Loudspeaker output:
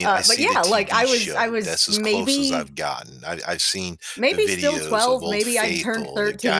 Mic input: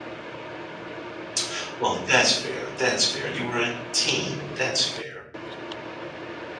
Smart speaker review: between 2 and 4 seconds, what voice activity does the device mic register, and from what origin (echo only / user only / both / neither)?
user only